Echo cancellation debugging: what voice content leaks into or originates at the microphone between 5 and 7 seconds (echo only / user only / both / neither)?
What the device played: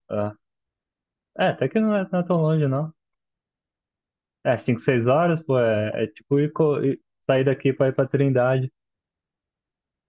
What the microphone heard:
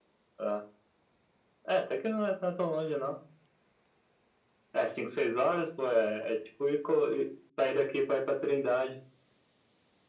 echo only